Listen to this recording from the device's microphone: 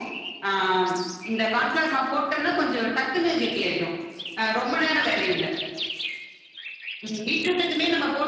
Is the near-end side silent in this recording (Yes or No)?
Yes